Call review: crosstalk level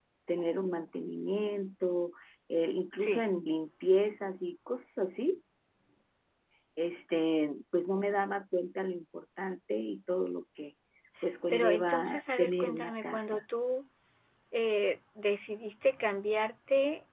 present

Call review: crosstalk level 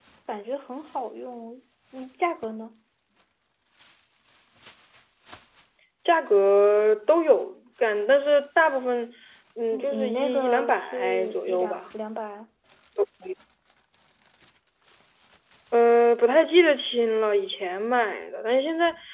present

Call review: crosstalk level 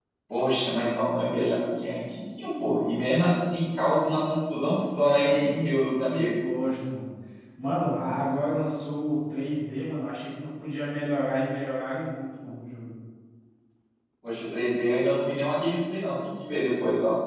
present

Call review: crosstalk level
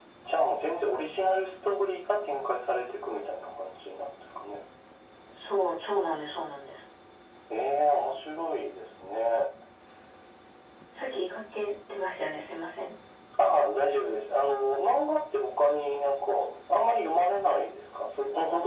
none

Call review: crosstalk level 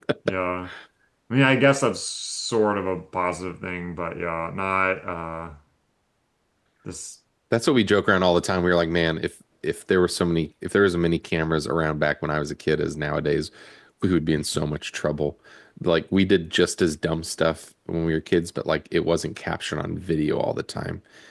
none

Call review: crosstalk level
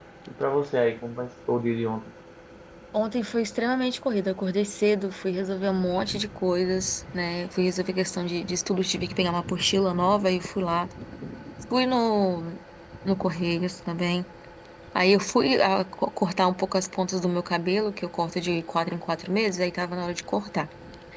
none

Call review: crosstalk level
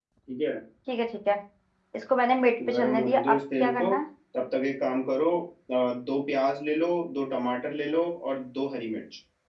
present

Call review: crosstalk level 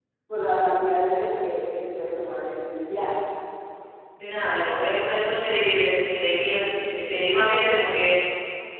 none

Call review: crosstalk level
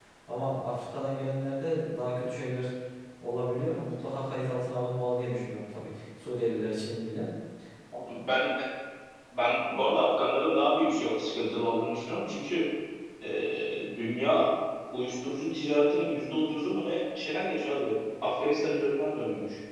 none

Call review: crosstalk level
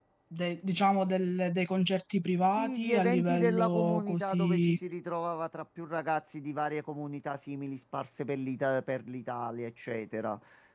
present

